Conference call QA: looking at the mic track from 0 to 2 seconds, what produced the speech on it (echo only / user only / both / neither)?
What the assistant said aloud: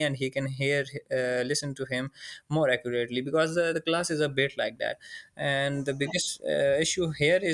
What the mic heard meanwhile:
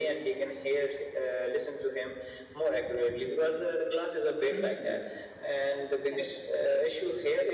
echo only